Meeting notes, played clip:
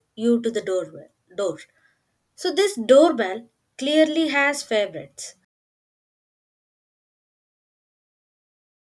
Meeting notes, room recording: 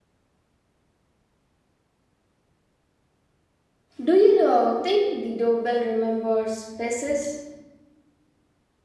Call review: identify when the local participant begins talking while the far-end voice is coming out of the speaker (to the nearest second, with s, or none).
4 s